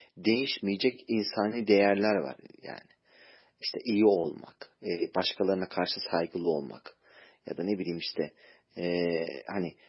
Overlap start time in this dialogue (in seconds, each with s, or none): none